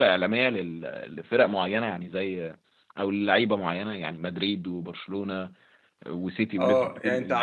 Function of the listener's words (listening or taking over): taking over